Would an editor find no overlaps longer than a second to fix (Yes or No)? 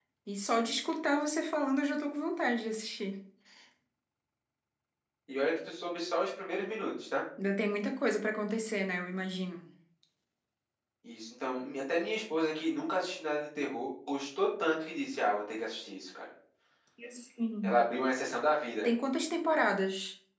Yes